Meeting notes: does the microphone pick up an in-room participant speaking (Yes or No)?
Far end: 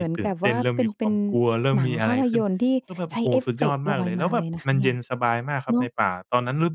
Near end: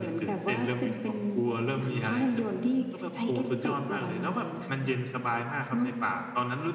No